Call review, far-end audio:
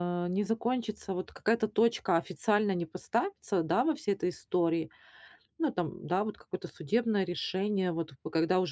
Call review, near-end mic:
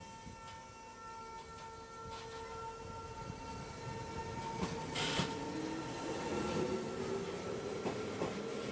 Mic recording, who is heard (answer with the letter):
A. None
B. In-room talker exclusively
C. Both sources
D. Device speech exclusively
A